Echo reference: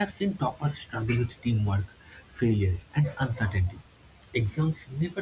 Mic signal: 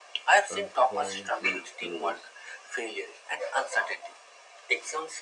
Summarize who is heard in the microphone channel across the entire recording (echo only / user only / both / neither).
both